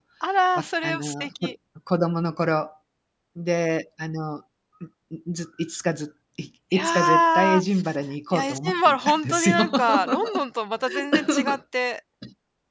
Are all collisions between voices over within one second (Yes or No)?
No